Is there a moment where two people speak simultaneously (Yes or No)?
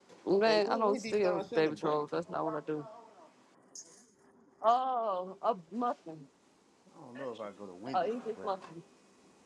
Yes